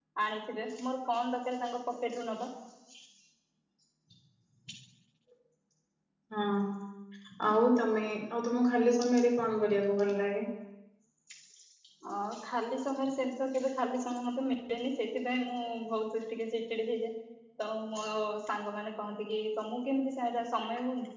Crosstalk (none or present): none